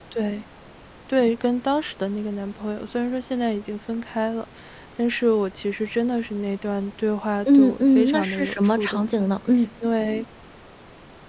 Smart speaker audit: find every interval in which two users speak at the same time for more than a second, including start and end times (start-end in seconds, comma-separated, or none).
7.5-9.2